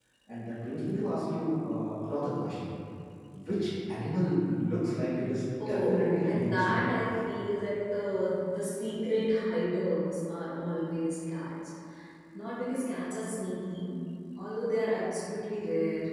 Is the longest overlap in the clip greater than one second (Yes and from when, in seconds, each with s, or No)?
Yes, from 5.6 s